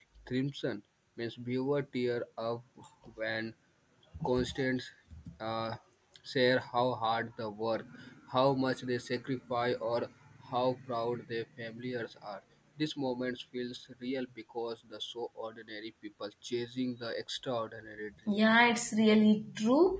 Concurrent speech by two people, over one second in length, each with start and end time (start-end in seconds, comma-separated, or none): none